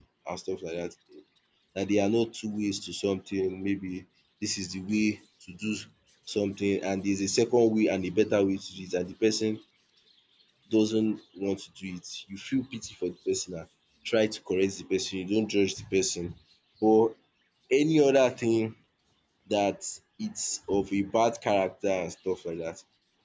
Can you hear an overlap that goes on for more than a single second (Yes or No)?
No